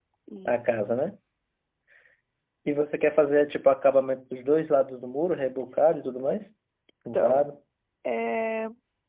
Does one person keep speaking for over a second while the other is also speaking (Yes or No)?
No